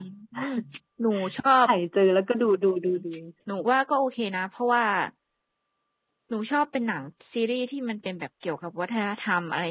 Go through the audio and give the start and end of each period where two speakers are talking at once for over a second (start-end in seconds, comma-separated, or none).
none